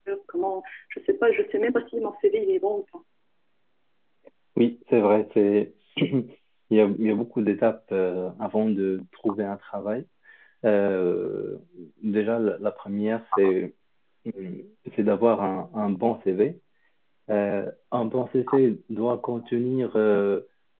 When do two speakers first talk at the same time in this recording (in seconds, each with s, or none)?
none